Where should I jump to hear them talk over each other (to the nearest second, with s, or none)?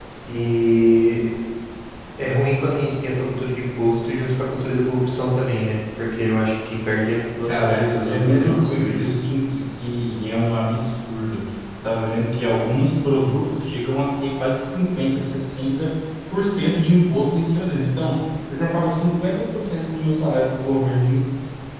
7 s